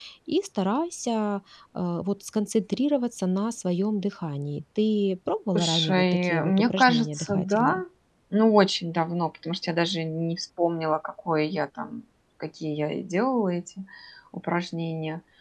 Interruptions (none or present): present